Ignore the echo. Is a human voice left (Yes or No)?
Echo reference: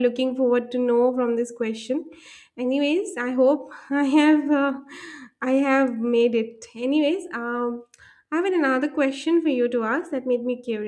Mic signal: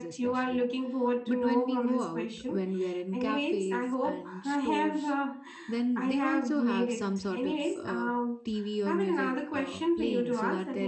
Yes